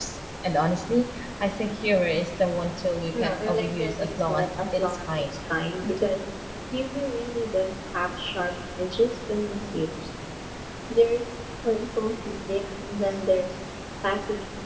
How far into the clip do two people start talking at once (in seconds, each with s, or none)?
3.1 s